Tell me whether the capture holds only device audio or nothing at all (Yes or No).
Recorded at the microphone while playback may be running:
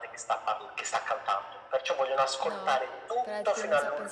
No